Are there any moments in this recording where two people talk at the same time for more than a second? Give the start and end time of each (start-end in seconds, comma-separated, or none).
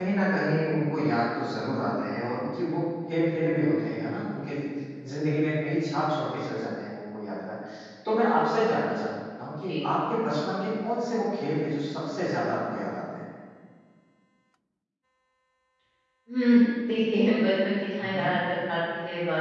none